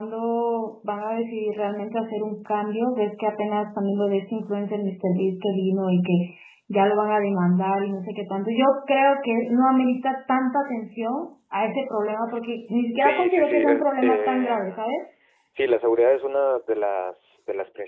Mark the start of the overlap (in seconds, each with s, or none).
12.9 s